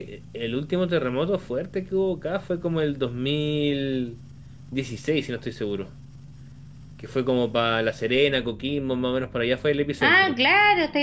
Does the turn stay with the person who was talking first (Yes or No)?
No